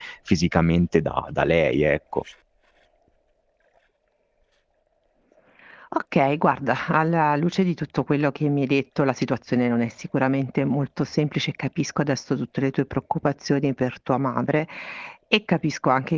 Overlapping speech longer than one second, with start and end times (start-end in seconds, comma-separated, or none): none